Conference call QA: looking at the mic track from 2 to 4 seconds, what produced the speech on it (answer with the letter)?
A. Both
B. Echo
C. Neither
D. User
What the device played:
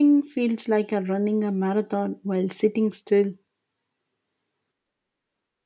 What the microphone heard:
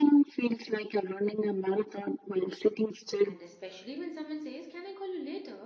A